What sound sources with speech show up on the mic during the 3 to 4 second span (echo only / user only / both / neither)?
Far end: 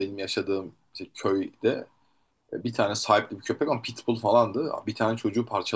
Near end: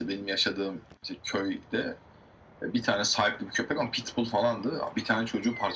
echo only